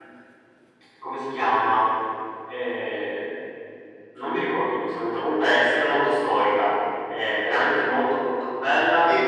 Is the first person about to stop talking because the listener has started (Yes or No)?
Yes